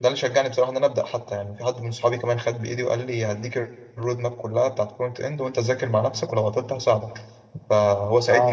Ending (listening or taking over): taking over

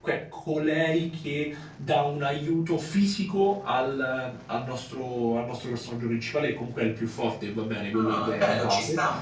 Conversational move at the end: taking over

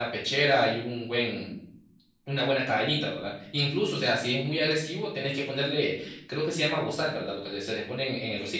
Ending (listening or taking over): taking over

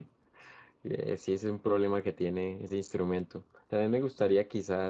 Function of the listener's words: listening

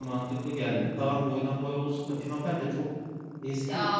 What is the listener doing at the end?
taking over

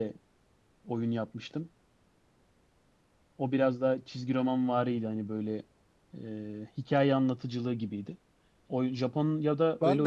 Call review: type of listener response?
taking over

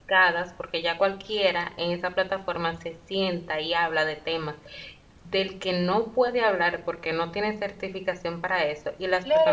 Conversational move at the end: taking over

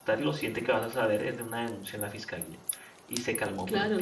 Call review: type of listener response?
taking over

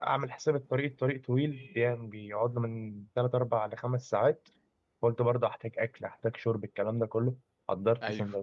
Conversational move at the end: listening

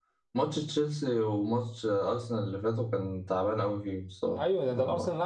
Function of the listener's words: taking over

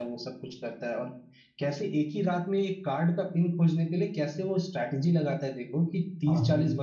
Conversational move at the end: listening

